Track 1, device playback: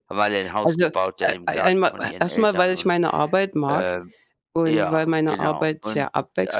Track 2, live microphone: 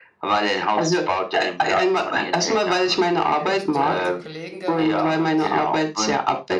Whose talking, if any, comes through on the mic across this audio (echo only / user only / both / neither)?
both